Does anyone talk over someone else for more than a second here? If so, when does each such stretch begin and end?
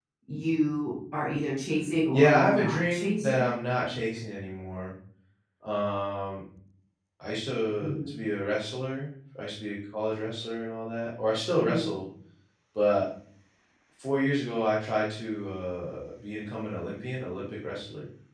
2.1-3.6

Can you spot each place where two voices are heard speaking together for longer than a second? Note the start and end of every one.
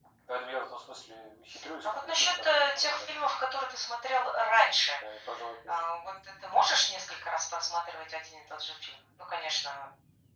1.8-3.2

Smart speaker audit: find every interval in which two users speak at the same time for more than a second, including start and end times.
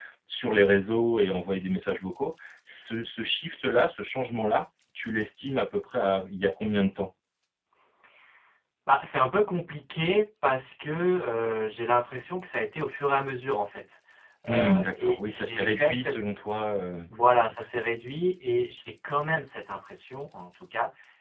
14.5-16.2

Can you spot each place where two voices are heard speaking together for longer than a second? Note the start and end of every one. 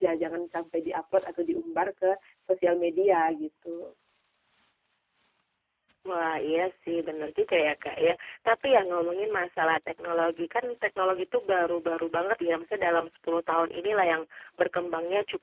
none

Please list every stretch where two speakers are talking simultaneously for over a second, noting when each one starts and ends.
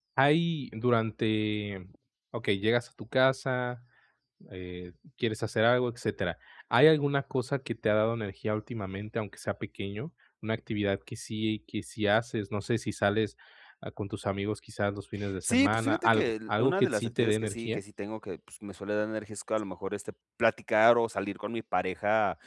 15.4-17.8

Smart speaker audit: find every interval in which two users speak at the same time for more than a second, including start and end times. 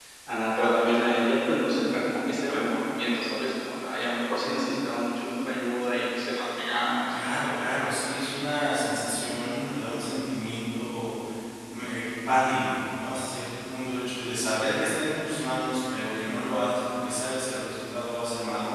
none

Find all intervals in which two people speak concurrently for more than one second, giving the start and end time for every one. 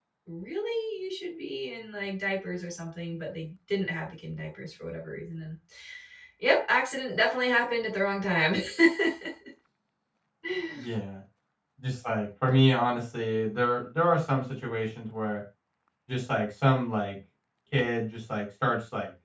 none

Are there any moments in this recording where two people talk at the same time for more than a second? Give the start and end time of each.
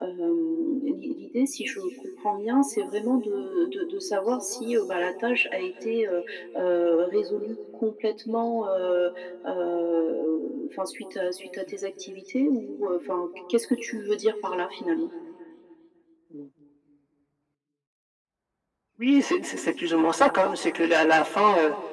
none

